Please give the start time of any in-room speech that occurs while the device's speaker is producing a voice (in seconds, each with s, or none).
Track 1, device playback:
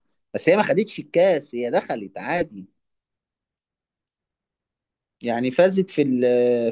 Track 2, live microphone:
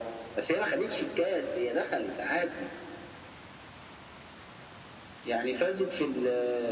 none